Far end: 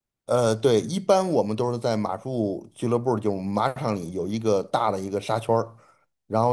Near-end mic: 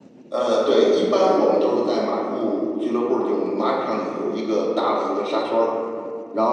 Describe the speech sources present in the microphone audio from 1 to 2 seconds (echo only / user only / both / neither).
echo only